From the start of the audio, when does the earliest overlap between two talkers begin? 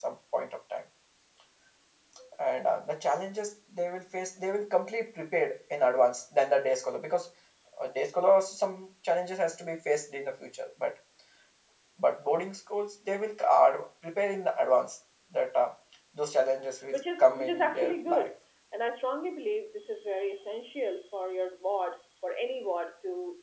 17 s

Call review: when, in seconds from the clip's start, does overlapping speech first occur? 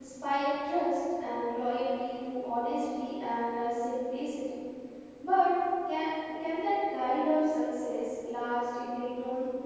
none

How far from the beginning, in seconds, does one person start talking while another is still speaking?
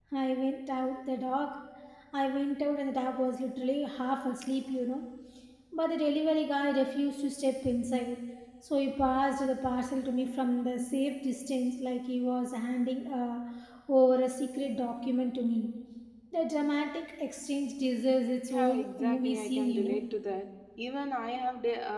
18 s

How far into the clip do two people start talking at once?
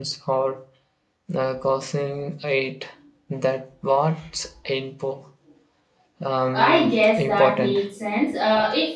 7 s

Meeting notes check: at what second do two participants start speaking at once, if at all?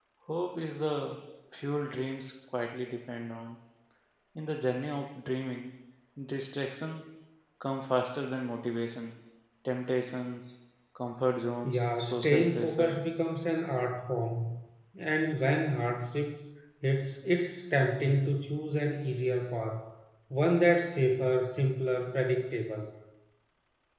12 s

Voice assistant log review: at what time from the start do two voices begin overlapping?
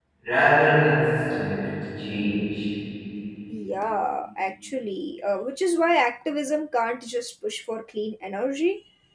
none

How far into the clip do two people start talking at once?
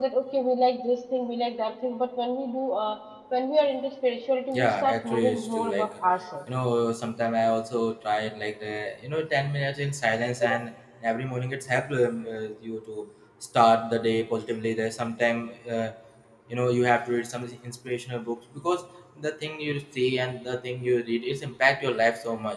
5 s

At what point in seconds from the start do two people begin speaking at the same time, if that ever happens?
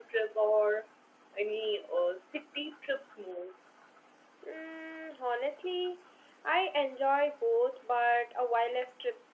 none

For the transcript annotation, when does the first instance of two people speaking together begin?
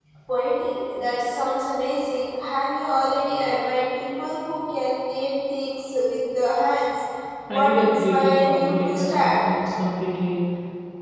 7 s

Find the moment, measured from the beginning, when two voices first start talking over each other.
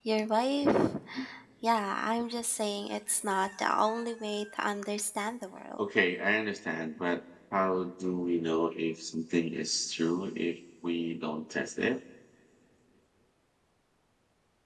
none

